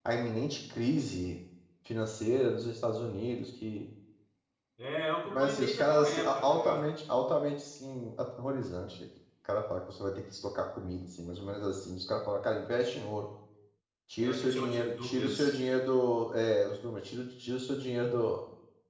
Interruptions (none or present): present